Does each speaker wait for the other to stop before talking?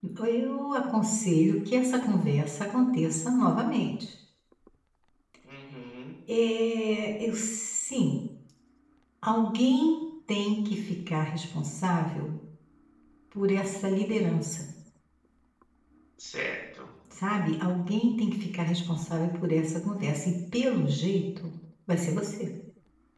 Yes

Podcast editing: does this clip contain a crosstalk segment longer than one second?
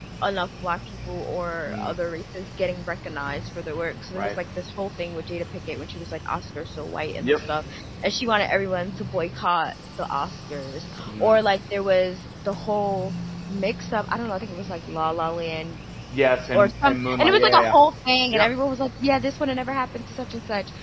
Yes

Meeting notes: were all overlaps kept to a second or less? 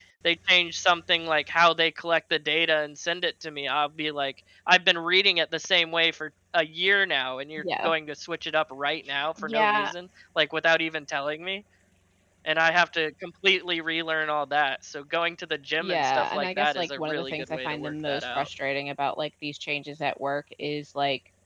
No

